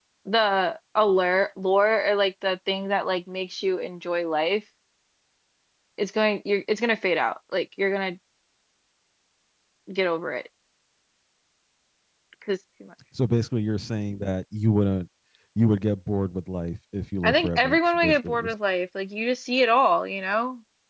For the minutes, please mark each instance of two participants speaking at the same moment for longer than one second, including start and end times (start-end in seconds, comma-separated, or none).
17.2-18.5